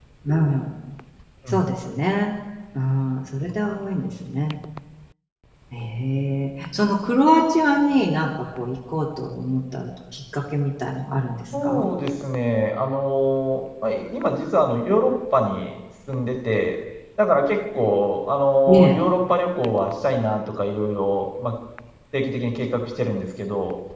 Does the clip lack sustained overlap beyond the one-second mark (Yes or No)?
Yes